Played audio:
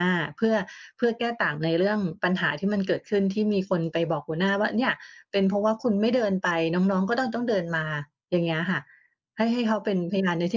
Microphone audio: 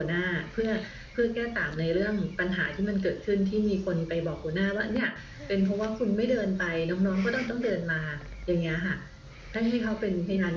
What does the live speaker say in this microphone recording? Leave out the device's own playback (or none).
none